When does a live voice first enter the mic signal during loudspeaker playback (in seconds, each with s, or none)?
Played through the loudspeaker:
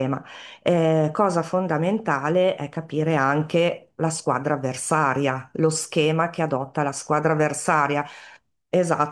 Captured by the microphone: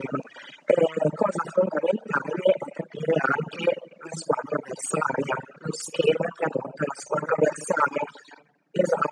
none